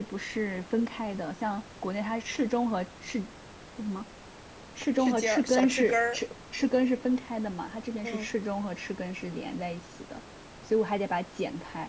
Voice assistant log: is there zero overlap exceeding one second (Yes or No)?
No